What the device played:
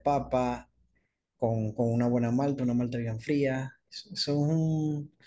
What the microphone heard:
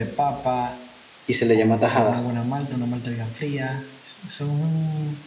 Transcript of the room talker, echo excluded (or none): y se le llama tajada,